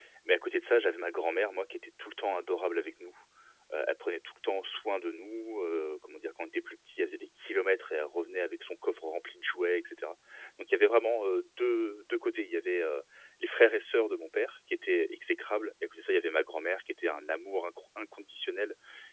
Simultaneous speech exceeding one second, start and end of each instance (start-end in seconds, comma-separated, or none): none